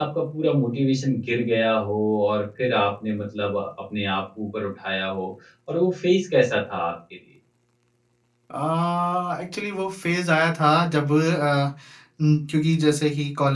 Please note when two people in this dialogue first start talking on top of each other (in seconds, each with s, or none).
none